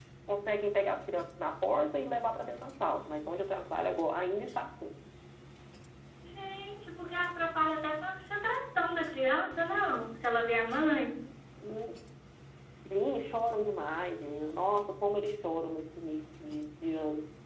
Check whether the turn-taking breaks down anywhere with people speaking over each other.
No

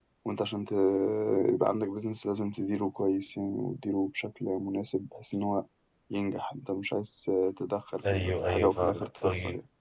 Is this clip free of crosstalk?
No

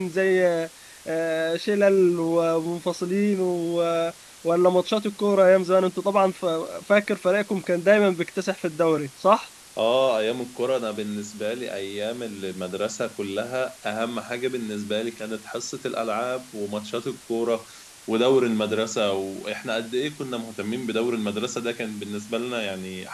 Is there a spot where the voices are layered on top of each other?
No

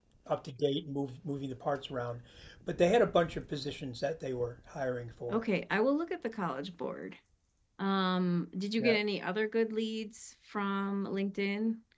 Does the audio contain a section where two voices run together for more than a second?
No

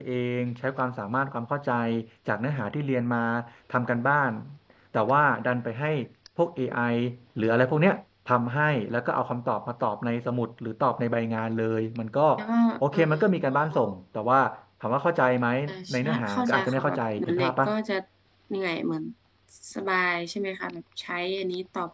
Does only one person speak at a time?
No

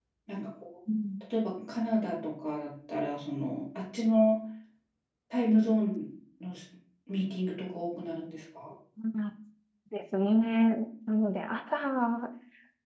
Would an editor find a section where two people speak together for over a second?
No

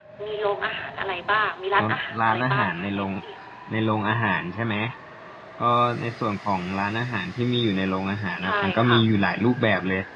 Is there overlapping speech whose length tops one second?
Yes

